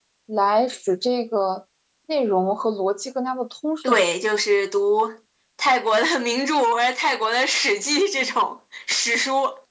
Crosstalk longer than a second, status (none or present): none